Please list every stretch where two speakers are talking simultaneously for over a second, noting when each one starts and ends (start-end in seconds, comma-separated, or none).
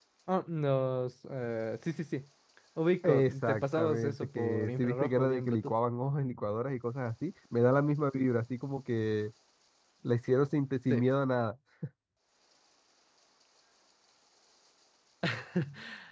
3.0-5.7